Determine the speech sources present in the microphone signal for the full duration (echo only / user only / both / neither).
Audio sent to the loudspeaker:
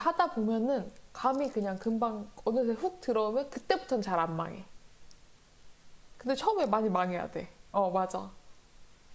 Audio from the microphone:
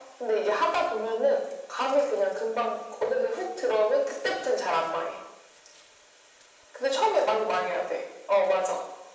echo only